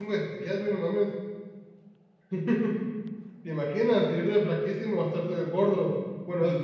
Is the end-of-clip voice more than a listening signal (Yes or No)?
No